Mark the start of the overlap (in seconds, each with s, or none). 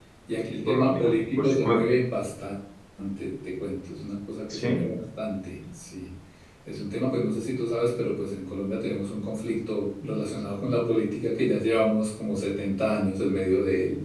0.7 s